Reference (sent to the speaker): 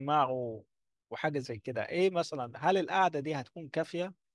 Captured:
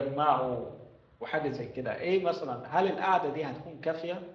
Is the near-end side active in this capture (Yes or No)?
No